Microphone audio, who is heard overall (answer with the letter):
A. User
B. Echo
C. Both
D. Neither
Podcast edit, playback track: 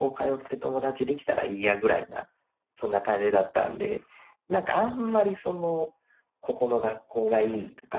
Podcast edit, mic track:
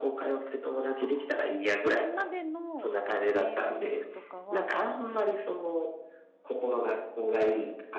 C